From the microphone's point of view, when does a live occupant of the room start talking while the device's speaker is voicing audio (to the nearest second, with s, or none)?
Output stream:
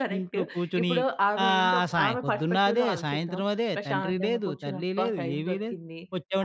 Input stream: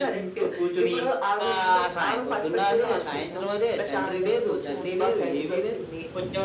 none